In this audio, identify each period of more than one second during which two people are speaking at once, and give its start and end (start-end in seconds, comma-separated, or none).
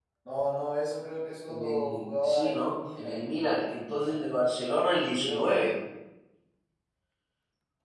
1.5-3.2